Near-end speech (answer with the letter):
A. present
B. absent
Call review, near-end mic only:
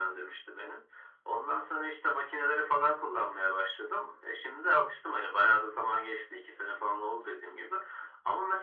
B